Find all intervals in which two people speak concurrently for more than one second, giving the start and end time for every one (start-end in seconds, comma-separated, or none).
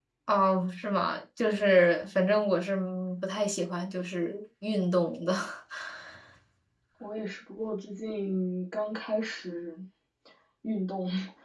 none